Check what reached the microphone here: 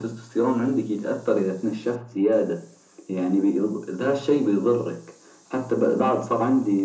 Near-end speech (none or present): none